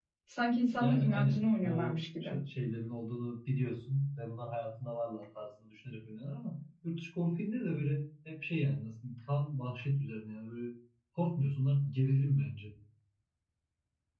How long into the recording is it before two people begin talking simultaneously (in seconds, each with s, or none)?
0.8 s